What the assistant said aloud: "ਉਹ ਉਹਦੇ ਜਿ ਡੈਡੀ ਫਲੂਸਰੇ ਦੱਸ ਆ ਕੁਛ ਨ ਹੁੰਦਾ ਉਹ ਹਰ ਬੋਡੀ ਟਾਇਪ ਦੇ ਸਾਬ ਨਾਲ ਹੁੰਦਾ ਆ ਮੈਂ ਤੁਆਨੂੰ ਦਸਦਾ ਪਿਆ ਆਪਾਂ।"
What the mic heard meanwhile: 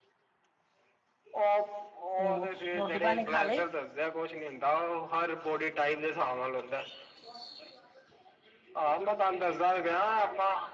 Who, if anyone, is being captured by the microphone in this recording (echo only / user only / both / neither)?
both